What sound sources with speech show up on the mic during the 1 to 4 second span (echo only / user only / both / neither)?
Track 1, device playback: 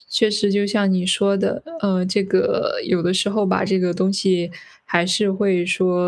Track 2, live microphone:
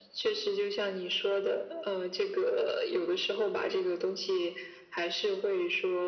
echo only